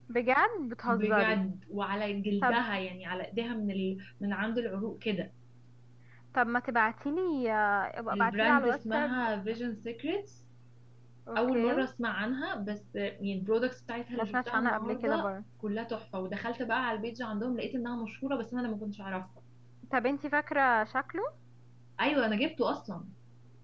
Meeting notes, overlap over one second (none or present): present